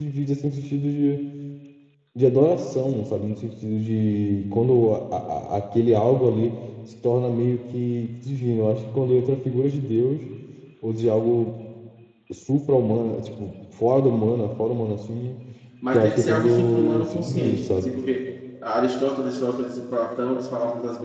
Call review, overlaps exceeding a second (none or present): present